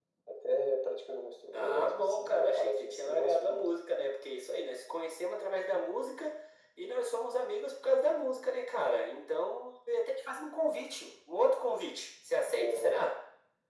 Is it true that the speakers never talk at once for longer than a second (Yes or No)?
No